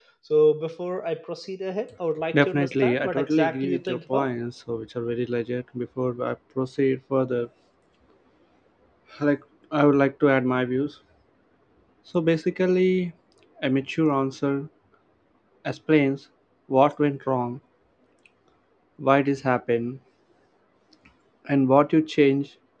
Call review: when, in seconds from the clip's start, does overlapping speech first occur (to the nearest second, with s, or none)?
2 s